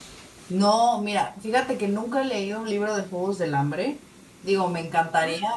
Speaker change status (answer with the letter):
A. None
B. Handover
A